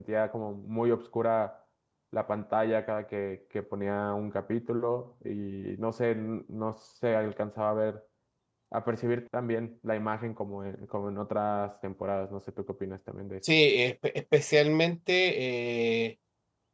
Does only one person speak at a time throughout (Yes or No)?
Yes